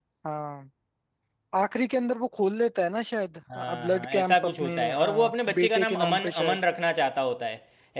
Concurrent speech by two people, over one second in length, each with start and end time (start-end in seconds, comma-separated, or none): 3.8-6.6